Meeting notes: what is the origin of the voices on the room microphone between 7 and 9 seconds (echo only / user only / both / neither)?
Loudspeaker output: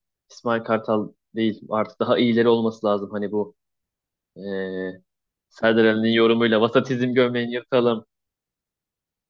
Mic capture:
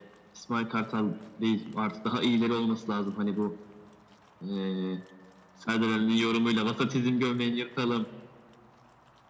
echo only